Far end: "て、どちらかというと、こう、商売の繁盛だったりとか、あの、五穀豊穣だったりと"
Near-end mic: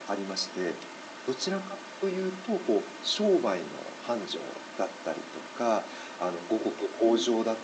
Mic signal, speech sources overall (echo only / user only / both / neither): echo only